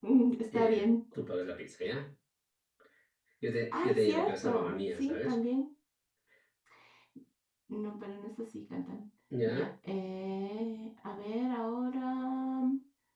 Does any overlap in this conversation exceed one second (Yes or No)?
Yes